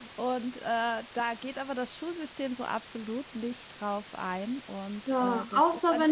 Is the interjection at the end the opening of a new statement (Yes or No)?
Yes